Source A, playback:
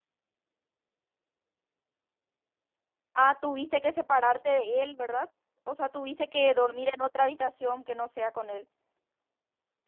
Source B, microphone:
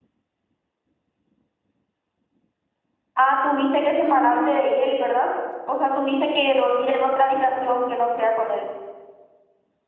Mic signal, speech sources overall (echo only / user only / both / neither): both